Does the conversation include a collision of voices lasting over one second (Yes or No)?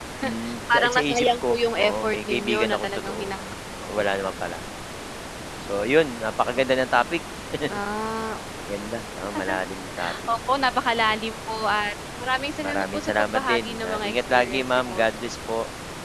Yes